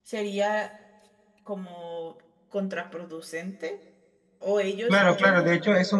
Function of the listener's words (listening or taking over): taking over